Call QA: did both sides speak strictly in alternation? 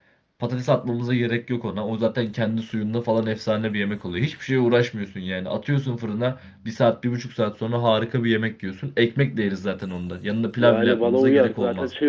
No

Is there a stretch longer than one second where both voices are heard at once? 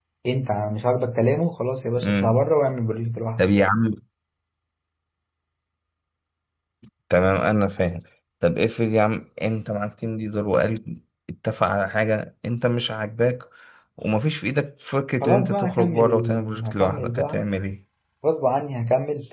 Yes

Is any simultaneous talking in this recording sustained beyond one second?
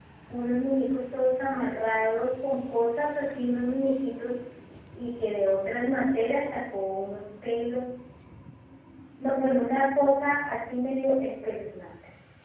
No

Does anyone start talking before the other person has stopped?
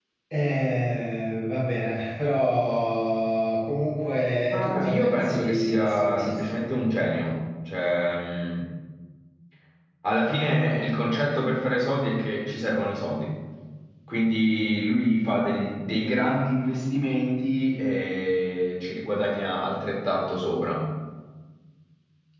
Yes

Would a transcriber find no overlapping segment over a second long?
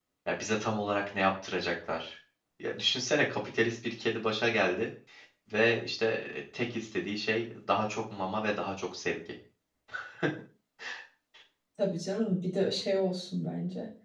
Yes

